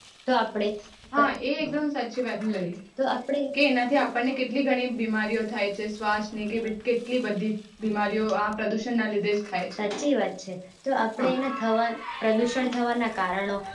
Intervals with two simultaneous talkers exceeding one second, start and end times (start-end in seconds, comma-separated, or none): none